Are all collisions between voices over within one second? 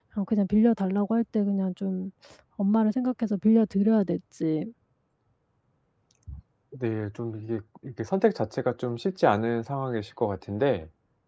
Yes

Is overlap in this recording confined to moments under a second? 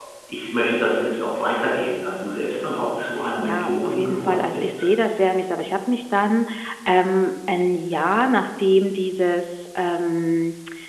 No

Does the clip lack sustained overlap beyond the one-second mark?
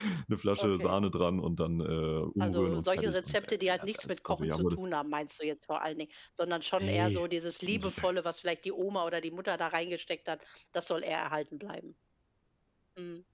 No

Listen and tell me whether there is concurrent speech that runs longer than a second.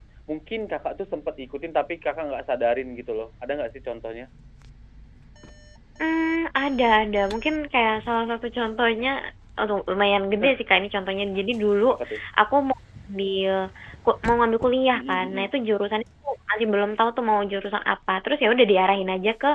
No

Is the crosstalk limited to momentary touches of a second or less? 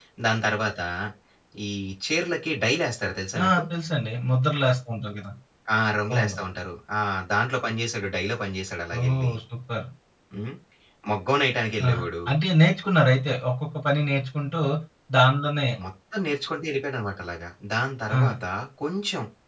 Yes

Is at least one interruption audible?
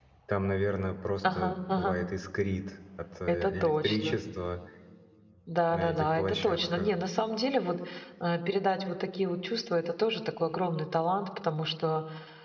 Yes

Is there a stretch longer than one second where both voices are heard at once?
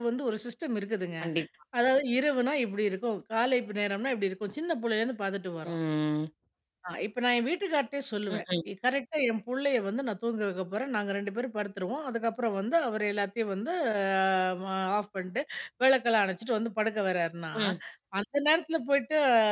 No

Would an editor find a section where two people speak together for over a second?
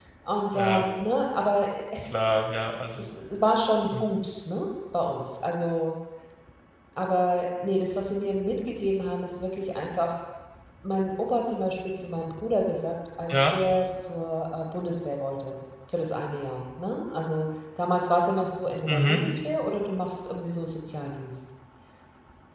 No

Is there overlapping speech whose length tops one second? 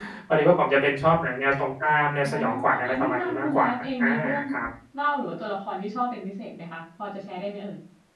Yes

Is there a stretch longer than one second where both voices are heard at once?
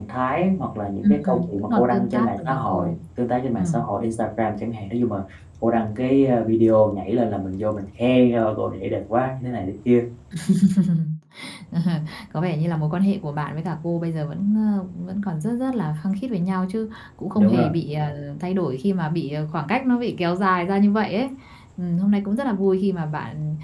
Yes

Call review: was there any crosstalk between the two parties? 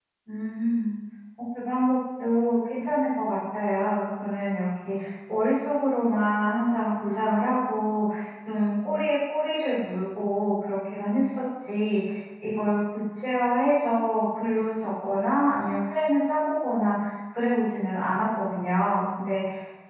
No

